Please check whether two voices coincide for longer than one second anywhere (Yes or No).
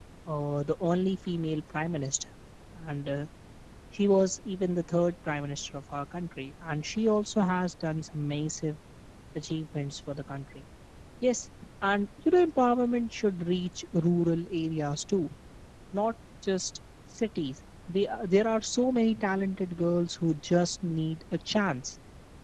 No